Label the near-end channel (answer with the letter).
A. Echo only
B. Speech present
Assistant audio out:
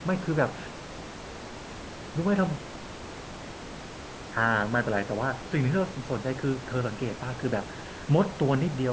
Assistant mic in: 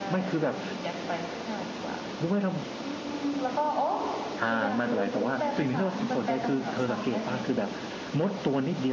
B